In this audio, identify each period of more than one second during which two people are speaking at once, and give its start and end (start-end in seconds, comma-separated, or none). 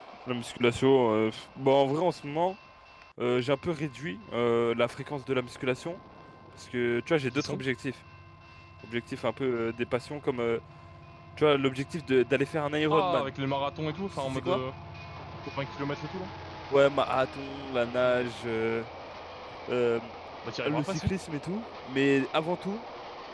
none